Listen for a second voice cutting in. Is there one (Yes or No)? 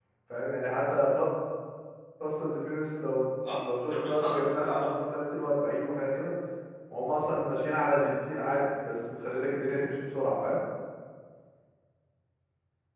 Yes